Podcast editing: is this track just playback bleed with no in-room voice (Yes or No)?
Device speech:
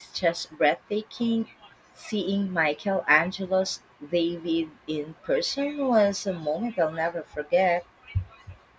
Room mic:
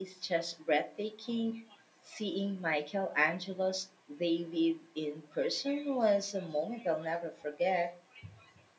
Yes